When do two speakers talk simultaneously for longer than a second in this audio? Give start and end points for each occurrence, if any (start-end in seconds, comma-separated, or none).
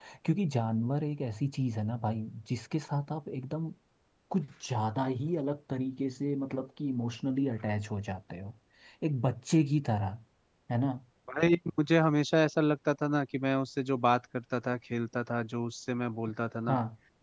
none